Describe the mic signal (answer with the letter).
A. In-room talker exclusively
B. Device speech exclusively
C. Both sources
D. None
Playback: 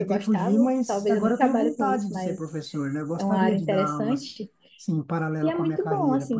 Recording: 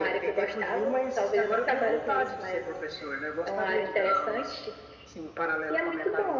B